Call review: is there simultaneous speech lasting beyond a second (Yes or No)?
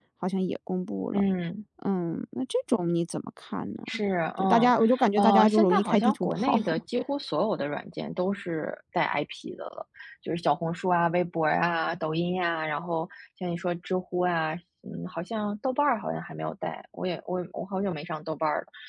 Yes